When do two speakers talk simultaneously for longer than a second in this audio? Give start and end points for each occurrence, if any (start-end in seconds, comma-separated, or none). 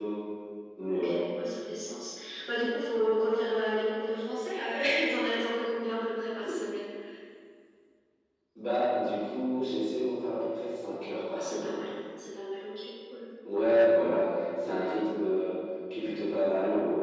none